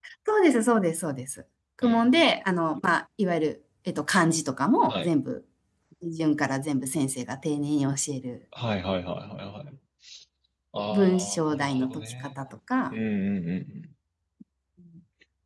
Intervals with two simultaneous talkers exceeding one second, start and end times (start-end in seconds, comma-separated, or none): 10.9-12.4